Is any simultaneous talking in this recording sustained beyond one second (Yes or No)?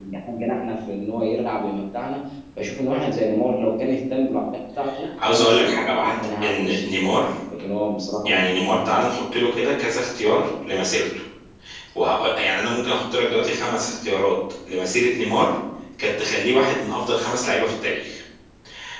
Yes